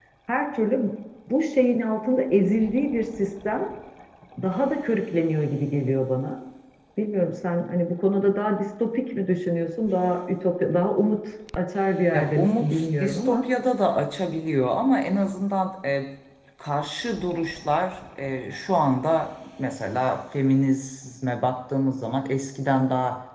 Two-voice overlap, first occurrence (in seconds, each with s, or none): 12.1 s